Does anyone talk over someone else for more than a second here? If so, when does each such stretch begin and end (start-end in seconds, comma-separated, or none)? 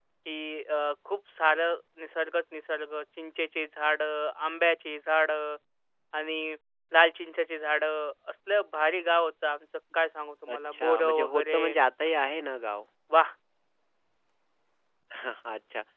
10.5-11.8